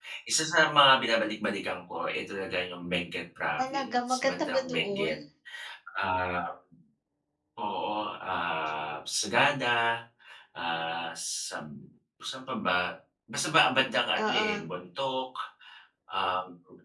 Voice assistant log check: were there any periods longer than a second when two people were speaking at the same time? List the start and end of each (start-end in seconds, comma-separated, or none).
3.6-5.1